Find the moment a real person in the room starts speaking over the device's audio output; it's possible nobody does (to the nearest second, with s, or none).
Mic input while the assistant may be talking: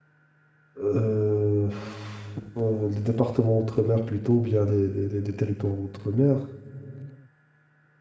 1 s